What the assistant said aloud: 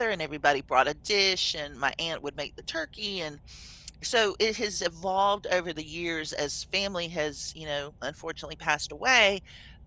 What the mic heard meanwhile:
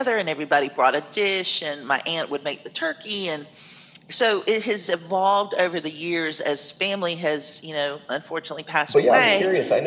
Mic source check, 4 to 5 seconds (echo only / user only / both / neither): echo only